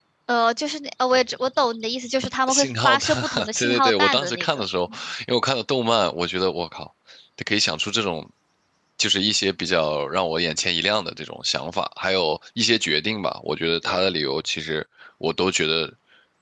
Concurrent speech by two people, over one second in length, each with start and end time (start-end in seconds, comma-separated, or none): 2.5-5.0